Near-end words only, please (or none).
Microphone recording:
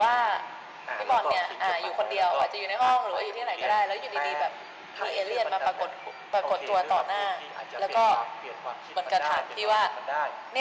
none